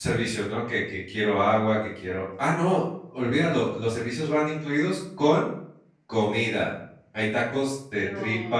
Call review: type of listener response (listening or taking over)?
listening